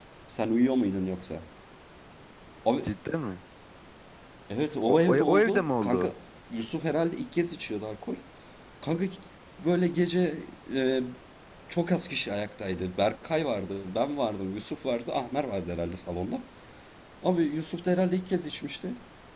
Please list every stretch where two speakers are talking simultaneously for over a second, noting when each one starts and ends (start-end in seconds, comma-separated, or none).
4.9-6.1